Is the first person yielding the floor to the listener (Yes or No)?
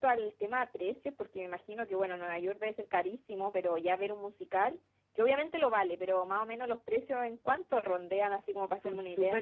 Yes